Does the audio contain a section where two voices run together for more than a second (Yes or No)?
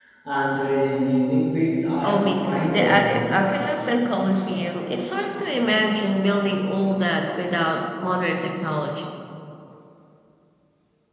Yes